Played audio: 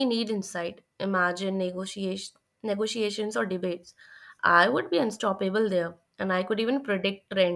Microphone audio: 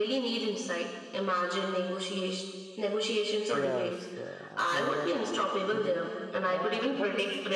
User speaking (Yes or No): Yes